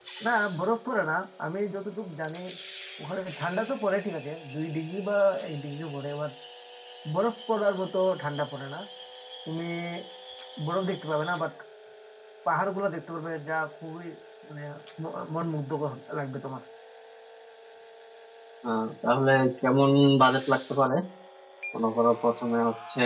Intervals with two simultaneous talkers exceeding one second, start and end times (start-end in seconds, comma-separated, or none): none